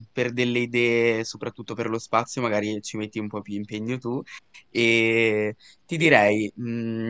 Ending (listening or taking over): listening